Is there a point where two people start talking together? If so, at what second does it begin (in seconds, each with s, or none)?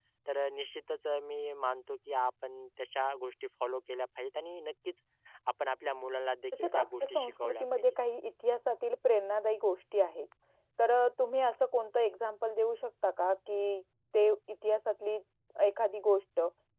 6.5 s